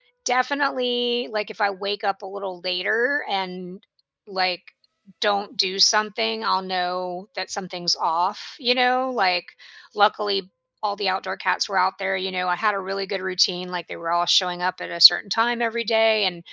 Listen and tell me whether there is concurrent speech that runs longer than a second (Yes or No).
No